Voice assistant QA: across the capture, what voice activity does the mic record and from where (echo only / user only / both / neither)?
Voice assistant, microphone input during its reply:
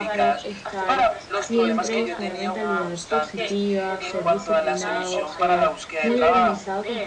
both